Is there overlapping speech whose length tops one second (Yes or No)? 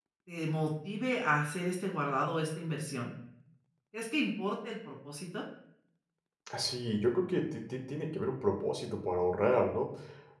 No